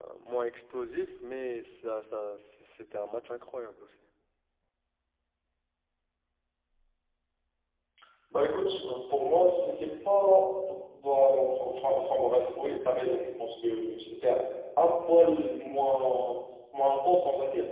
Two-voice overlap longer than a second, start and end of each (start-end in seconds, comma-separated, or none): none